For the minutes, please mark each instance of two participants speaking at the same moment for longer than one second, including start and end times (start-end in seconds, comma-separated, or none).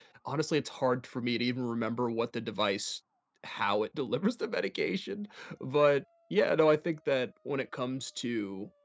none